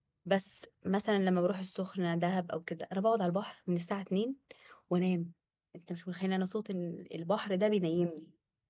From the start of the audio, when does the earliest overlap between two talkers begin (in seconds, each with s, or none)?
none